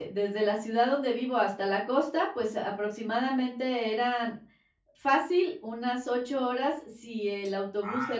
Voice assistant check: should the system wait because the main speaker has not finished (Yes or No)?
Yes